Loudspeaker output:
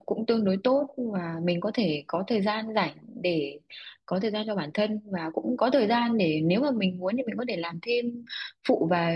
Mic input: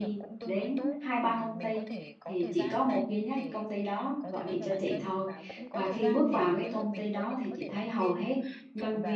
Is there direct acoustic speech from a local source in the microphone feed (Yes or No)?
Yes